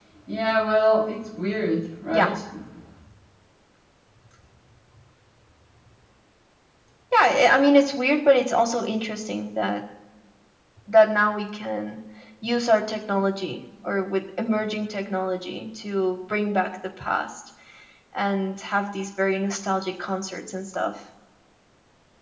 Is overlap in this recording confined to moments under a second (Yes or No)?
Yes